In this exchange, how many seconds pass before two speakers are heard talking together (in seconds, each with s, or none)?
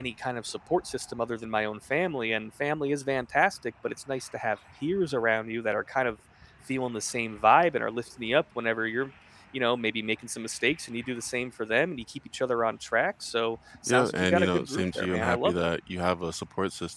13.9 s